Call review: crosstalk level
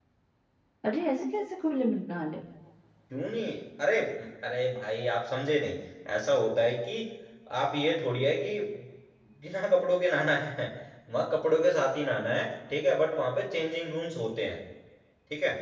none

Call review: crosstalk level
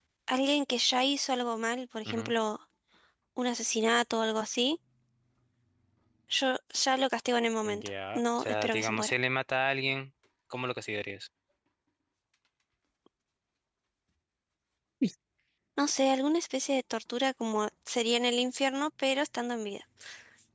present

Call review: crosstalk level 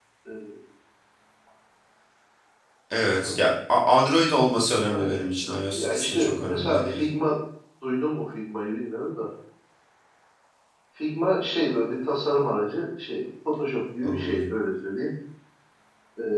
present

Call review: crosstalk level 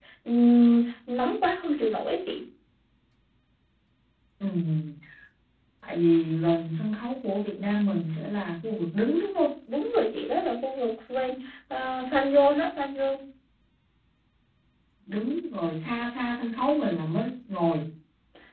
none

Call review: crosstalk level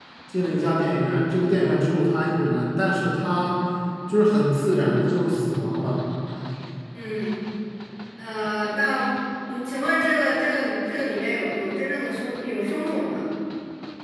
none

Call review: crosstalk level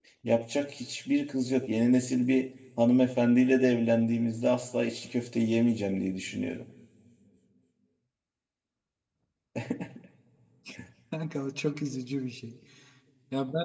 none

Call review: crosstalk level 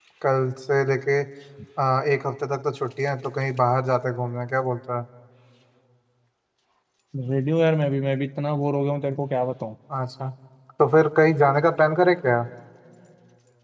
none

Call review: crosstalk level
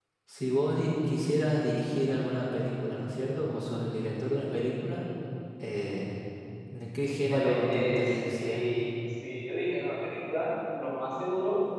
present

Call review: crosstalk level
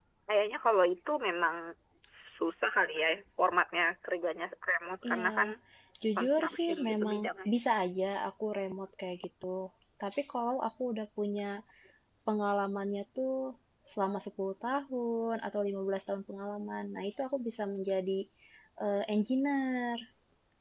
present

